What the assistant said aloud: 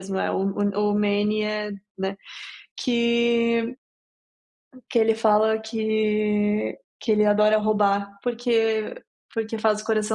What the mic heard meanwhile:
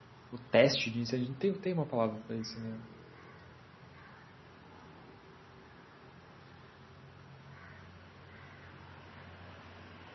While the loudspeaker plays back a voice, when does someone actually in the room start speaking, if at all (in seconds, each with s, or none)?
0.3 s